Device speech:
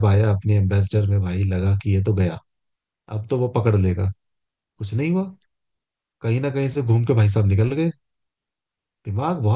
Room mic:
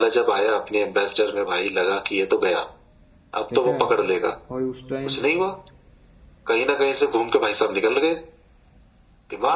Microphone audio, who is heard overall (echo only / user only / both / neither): both